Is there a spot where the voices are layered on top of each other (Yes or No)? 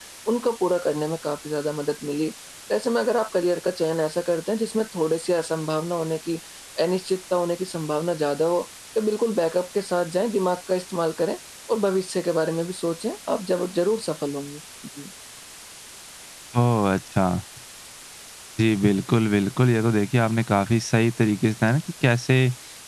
No